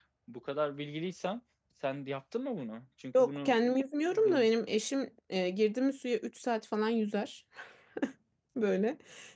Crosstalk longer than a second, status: none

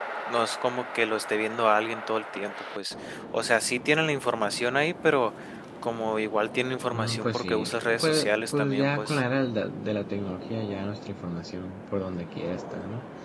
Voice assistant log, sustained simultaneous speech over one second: present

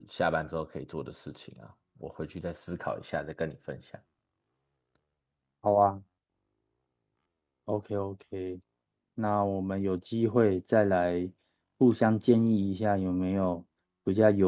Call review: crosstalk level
none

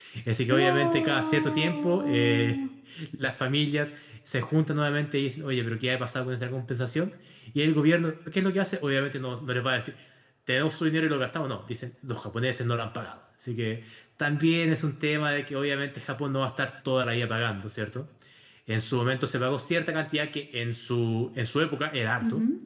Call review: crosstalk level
present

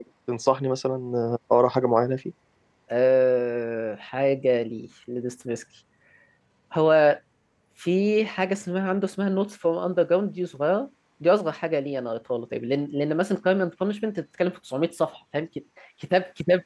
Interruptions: none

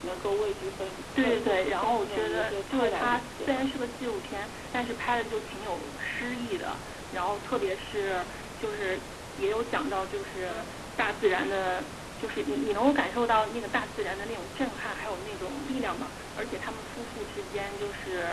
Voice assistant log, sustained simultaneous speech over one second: present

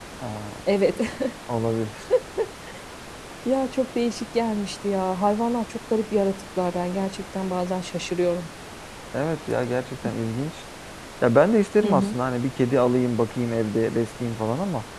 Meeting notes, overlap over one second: none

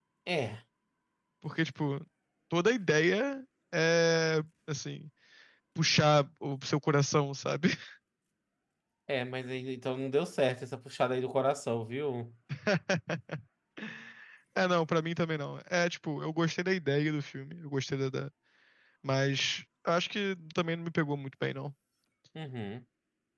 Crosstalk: none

